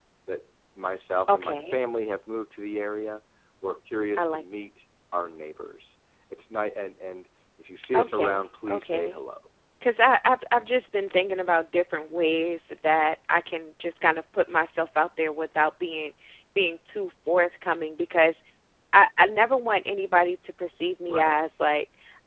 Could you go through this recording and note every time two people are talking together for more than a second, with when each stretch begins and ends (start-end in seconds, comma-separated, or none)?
7.9-9.2